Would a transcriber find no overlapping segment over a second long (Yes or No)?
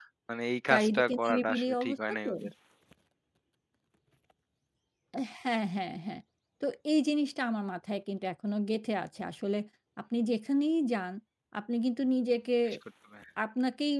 No